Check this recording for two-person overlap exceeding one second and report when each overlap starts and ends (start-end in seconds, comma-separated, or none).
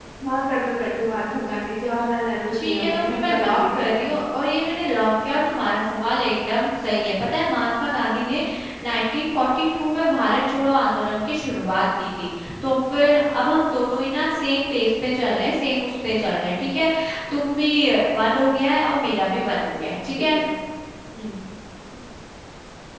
2.5-4.1